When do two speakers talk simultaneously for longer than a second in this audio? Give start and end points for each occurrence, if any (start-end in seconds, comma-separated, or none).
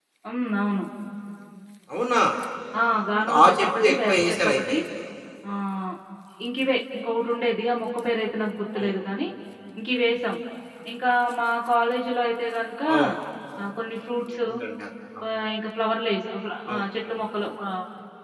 3.3-4.8